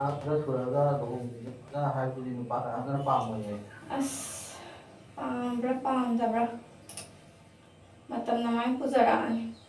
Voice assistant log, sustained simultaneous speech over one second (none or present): none